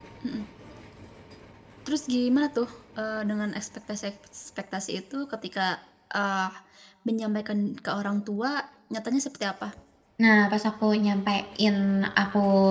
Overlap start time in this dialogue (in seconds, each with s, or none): none